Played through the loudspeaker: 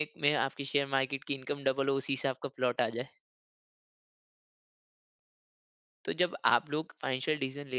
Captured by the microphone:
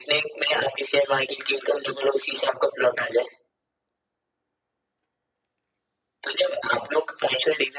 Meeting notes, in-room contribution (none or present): none